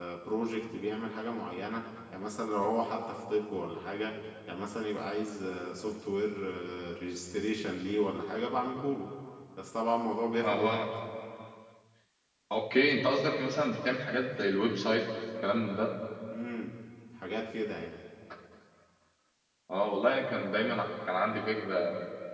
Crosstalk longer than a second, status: none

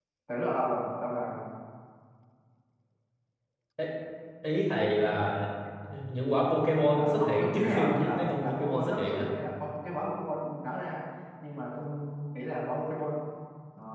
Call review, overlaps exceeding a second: present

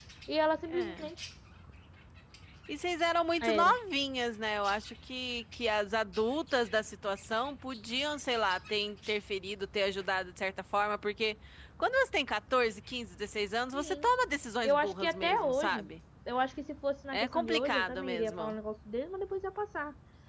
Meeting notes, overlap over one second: present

